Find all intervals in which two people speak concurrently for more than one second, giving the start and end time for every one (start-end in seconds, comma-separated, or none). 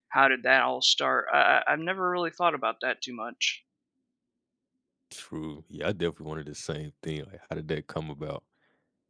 none